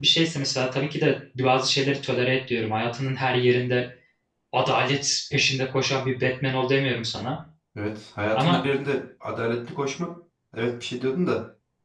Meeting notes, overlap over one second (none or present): none